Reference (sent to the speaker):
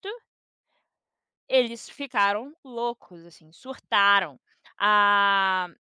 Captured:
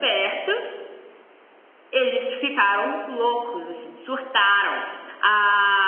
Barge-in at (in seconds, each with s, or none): none